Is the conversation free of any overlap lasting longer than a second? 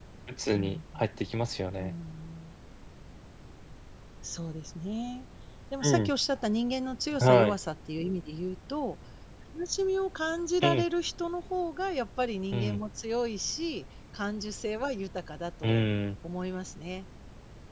Yes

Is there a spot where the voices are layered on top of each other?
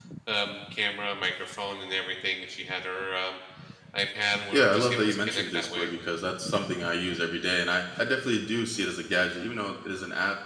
Yes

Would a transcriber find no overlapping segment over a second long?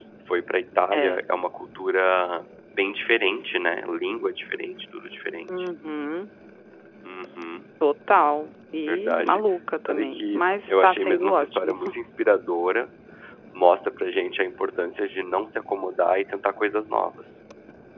No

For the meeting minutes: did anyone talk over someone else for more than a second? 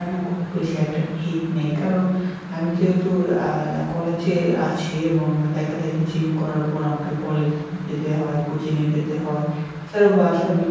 No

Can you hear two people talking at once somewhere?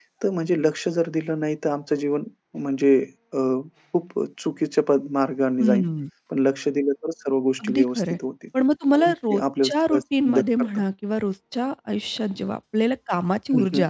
Yes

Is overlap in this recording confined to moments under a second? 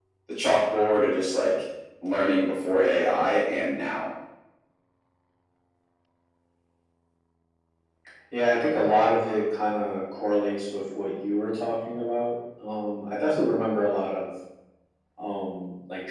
Yes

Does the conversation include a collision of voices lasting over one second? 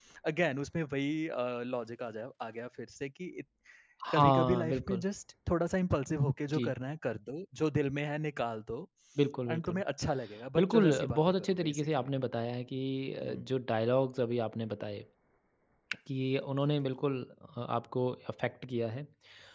Yes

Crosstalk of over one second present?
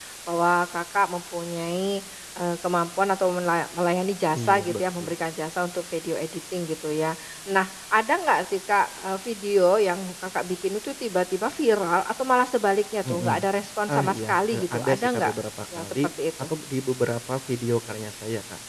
Yes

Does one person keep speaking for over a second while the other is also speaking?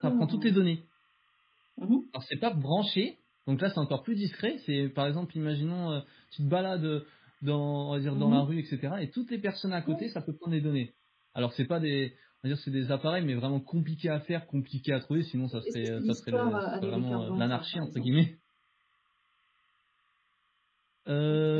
Yes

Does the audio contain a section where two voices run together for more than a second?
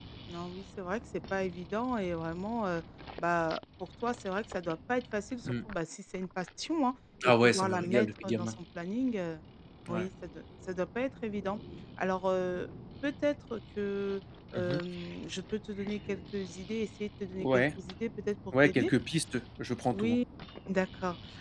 Yes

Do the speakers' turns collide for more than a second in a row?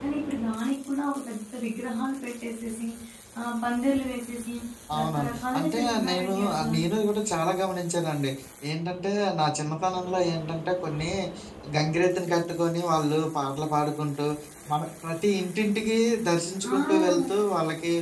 Yes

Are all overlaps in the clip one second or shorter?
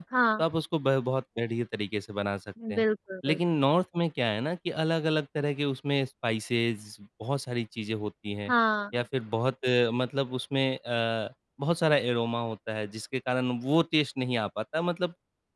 Yes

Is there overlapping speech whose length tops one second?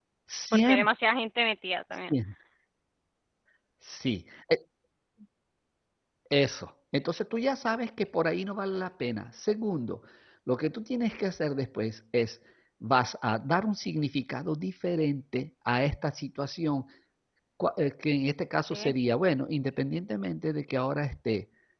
No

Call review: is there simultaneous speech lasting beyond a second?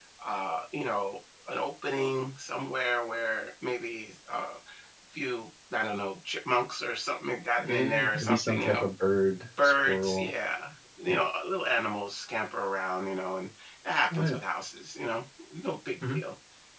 Yes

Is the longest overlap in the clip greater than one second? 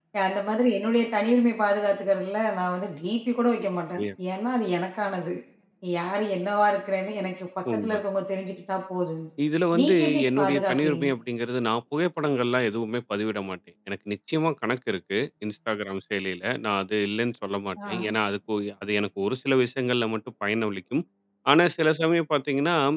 Yes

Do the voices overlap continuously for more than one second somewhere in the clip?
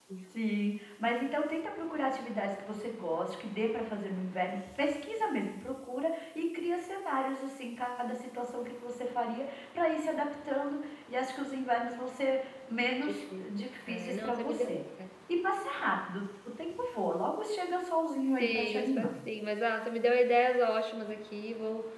Yes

